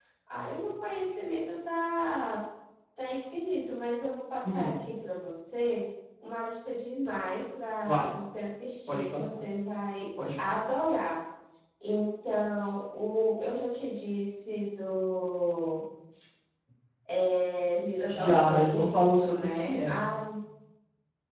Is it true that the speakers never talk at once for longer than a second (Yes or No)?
No